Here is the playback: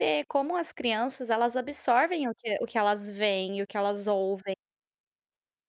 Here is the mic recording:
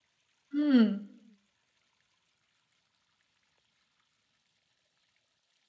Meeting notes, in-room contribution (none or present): present